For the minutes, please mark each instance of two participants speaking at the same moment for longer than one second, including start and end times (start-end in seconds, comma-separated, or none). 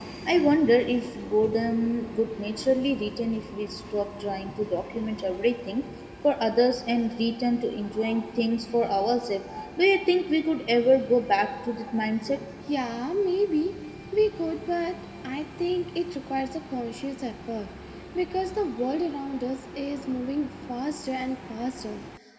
none